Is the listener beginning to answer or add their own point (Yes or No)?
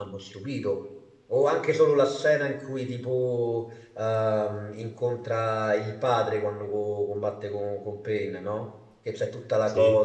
No